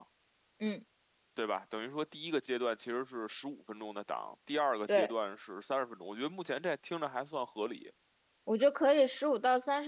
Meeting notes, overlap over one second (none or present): none